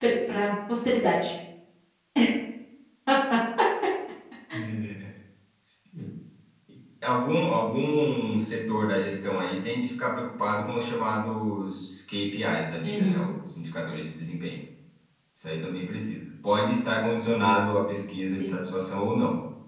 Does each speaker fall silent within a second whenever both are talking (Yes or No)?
Yes